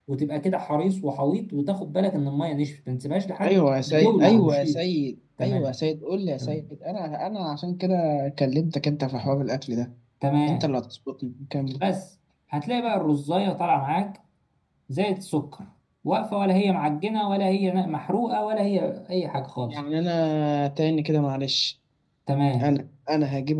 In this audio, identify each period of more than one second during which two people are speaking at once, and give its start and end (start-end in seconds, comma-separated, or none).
3.4-4.8